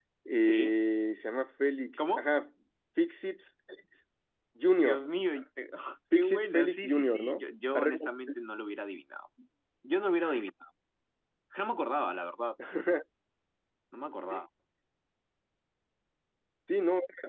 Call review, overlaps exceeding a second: present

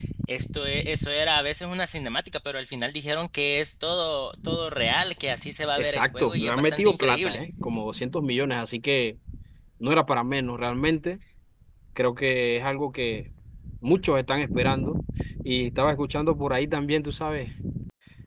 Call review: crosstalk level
present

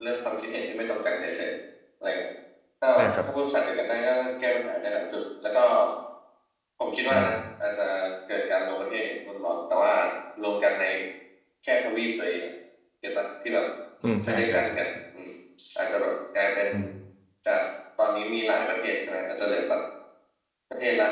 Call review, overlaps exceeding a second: none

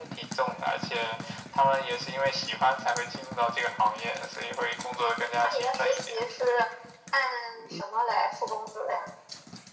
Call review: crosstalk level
present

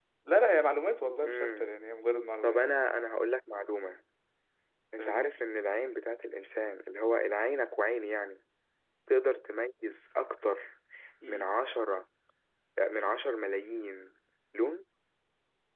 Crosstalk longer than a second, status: none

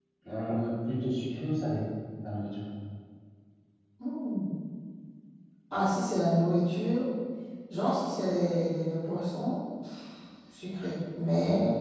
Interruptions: none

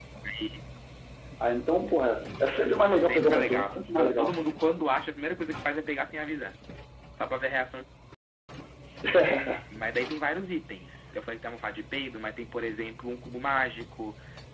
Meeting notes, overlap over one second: present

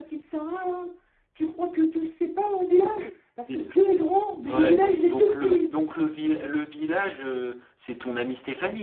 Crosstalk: present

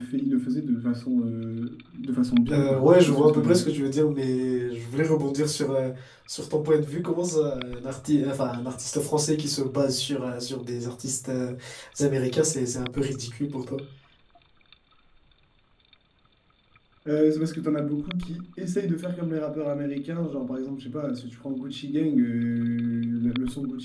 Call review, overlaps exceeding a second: present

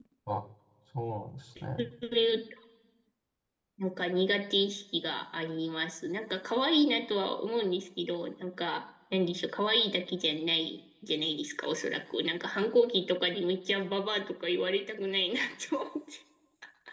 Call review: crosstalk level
none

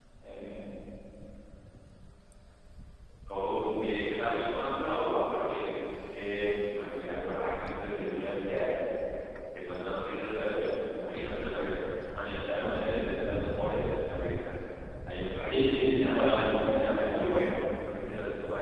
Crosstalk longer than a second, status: present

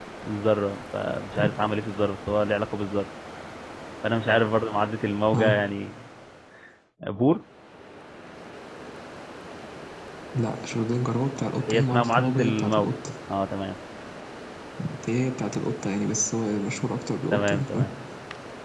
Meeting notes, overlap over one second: present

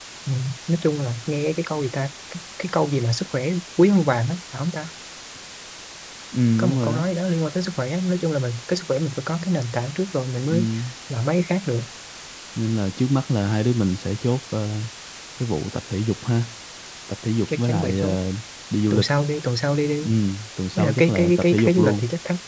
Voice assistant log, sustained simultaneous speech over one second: present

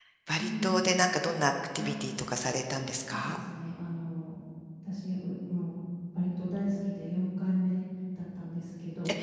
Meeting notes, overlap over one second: none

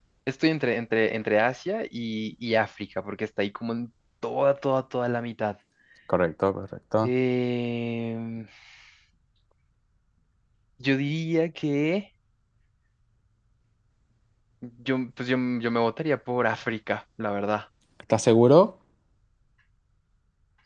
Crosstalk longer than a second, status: none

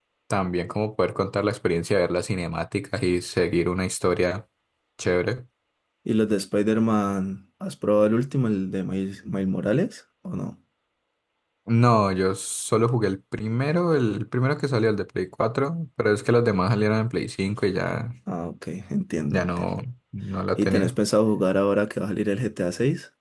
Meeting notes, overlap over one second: none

